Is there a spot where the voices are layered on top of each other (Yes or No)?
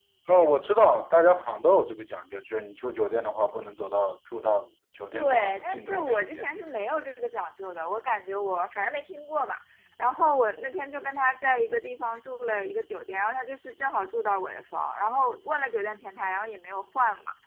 Yes